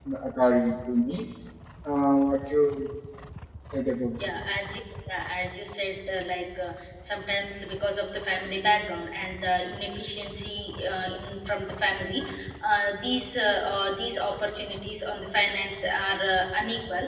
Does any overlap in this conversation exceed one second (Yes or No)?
No